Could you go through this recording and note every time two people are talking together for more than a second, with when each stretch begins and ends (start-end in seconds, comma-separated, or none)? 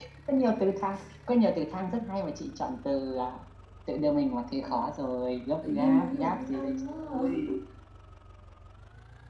5.7-7.2